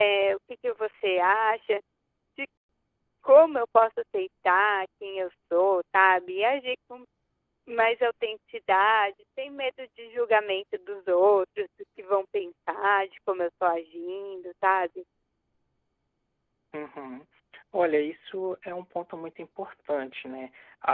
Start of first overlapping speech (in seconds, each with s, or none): none